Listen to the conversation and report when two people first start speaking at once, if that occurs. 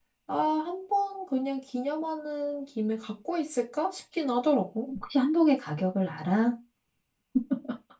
none

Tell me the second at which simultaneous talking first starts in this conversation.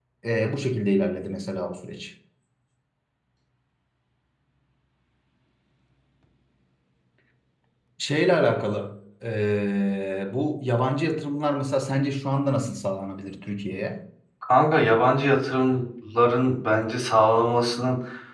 none

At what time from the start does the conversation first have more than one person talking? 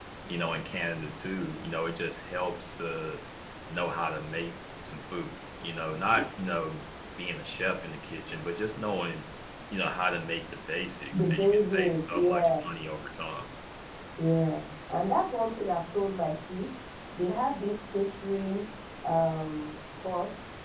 11.1 s

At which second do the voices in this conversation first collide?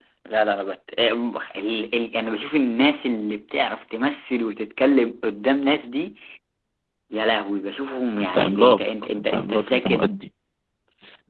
8.3 s

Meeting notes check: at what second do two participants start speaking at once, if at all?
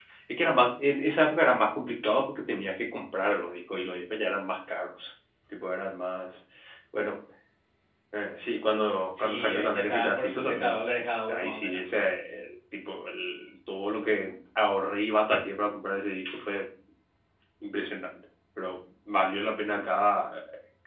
9.1 s

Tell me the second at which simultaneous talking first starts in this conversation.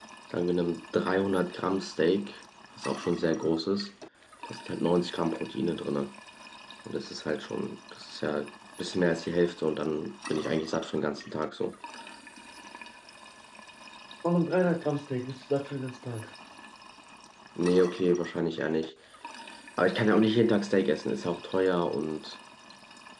none

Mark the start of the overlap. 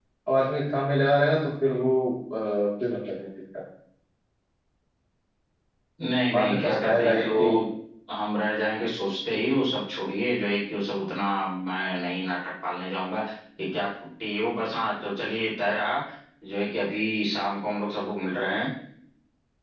6.3 s

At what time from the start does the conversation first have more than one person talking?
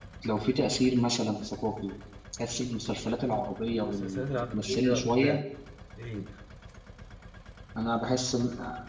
3.6 s

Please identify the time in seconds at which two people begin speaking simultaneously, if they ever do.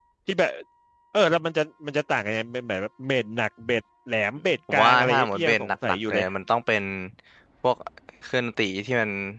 4.7 s

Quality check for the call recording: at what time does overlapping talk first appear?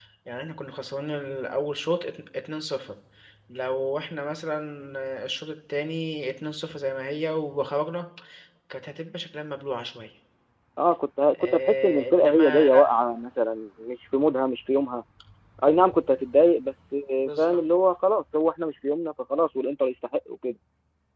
11.3 s

